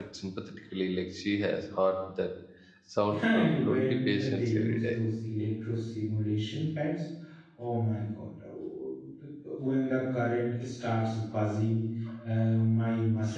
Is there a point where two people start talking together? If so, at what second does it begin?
3 s

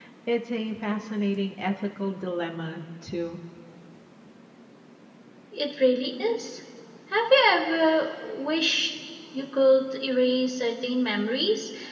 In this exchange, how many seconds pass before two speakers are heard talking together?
none

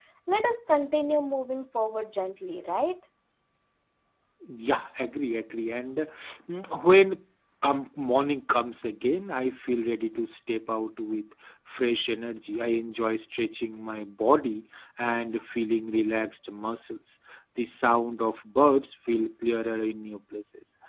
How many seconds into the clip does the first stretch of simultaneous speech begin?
none

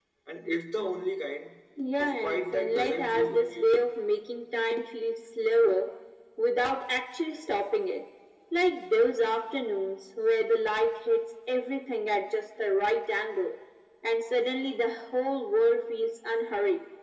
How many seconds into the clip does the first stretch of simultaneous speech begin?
2 s

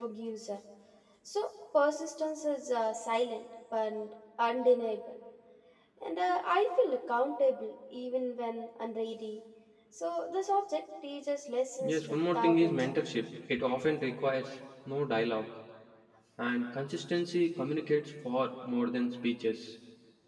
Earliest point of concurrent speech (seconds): 12 s

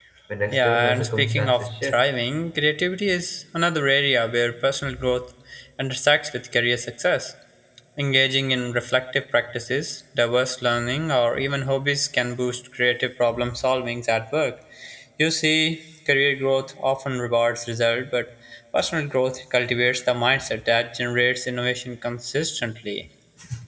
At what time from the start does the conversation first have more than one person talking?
1 s

